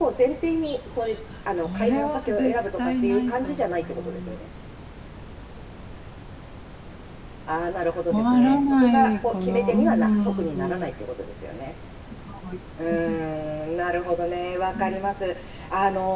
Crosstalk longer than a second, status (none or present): present